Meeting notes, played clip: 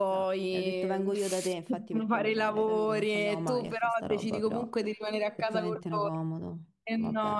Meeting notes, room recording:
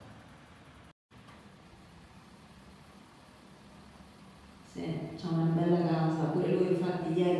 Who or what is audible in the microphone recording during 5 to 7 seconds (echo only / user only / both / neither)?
user only